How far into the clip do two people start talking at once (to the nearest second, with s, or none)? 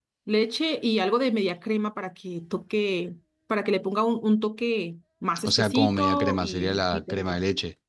5 s